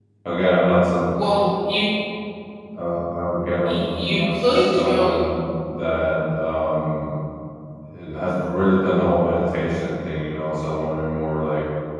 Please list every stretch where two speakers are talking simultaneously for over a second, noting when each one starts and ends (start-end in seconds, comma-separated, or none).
3.6-5.2